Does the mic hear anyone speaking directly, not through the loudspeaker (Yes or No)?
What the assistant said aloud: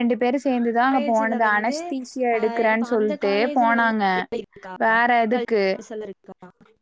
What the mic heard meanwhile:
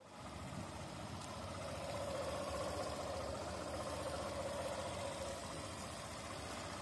No